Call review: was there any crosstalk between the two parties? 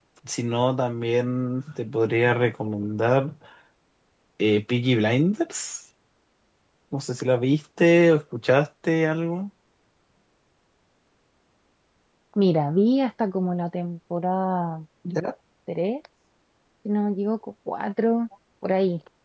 No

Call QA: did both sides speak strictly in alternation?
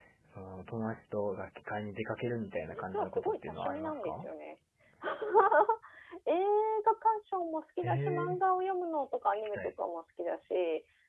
No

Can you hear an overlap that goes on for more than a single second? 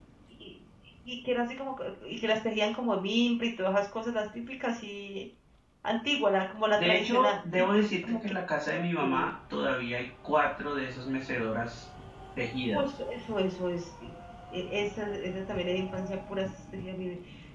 Yes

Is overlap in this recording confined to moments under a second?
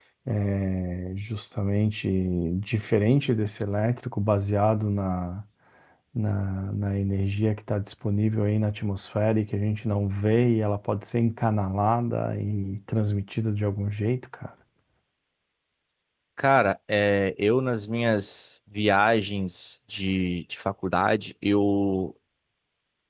Yes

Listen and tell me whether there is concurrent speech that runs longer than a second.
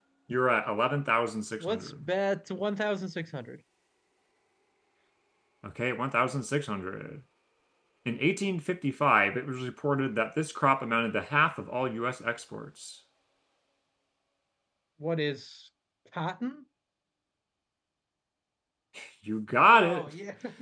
No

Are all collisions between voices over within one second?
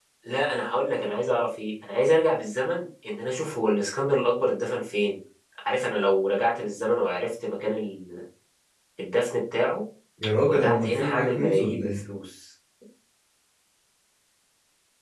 No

